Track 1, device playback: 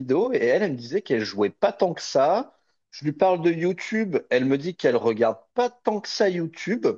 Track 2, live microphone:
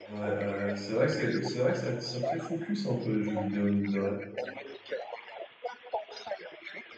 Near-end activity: present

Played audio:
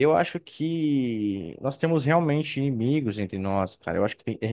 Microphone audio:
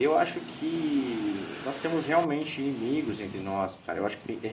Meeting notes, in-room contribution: none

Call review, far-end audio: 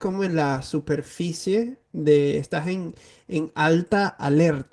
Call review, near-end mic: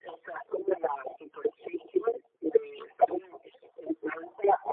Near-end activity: none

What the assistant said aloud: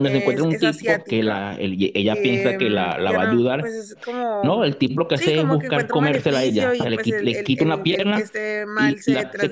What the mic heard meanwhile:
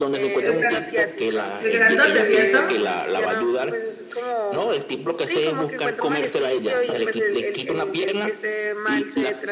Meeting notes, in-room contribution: present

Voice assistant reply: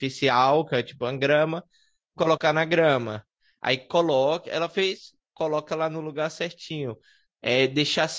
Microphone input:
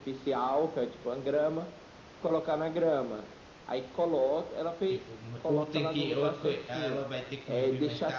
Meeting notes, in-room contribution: present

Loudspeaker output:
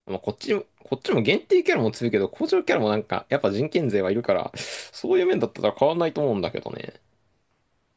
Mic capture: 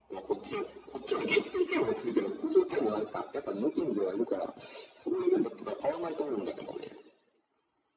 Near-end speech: none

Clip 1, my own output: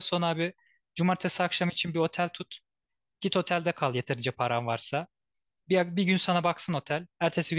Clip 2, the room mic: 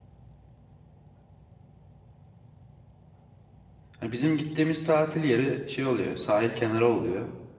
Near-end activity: present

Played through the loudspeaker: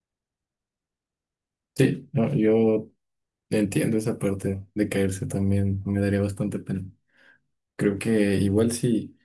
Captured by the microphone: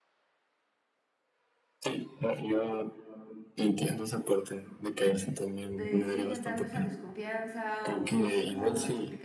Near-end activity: present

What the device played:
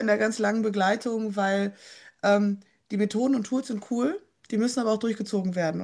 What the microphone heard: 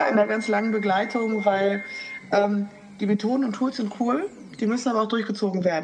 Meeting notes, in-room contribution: none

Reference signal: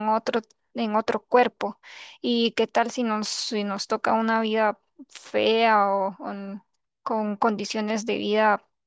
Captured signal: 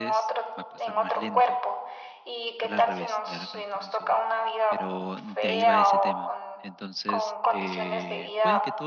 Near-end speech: present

